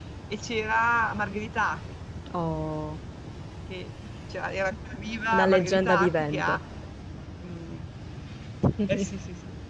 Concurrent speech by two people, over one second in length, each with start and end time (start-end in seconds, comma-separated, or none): 5.3-6.6